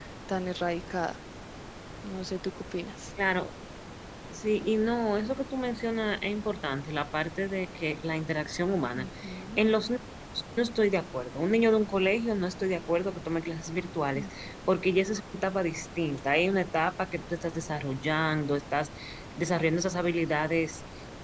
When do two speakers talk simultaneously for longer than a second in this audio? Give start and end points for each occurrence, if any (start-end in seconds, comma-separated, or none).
none